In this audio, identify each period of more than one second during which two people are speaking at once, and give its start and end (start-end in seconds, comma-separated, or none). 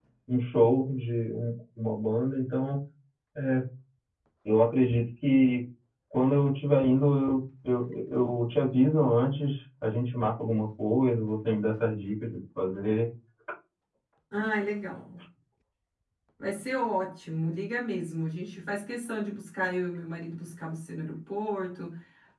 none